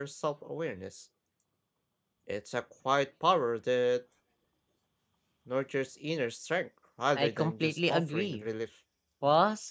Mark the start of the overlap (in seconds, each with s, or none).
7.2 s